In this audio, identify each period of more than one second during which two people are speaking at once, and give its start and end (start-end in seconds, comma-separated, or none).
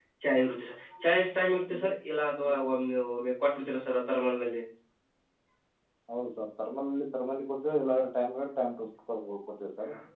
none